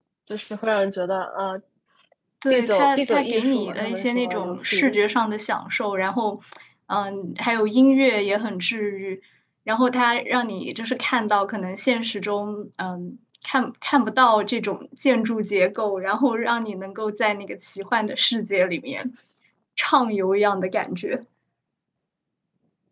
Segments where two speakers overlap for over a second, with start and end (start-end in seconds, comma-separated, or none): 2.5-4.8